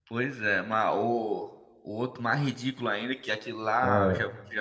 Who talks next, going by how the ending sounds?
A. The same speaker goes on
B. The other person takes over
A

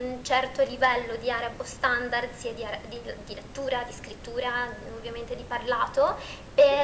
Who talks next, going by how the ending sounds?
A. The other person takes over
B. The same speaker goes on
B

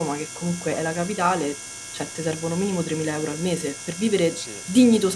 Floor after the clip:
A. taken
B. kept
B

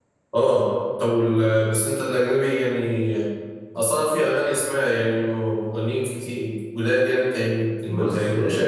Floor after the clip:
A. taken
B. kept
A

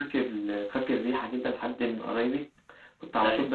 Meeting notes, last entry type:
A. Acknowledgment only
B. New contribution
A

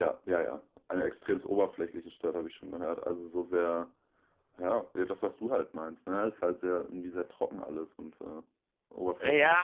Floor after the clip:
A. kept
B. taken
B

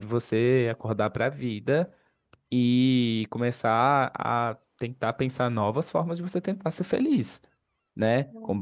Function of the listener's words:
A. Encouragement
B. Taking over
A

